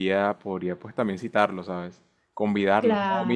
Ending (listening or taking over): listening